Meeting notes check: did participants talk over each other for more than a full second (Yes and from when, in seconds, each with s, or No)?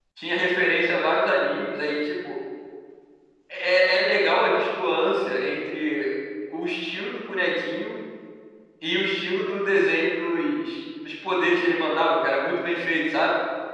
No